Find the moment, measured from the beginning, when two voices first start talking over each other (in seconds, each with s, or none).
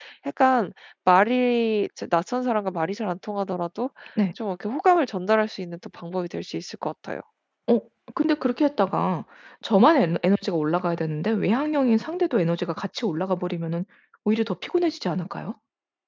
none